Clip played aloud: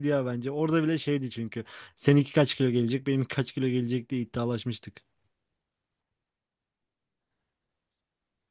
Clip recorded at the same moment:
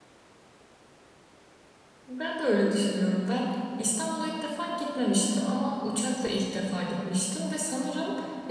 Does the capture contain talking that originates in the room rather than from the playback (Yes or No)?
Yes